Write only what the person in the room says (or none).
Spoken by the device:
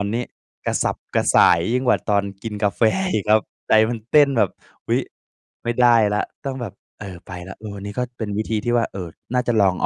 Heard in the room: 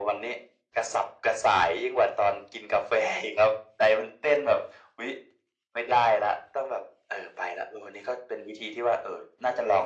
none